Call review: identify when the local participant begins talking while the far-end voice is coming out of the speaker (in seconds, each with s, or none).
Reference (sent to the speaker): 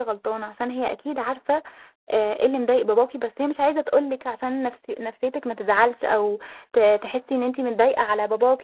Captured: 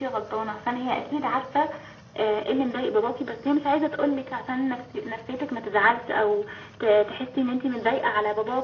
none